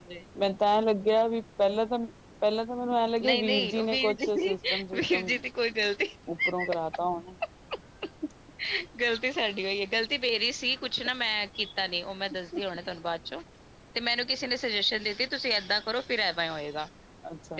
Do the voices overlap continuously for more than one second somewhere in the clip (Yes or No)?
Yes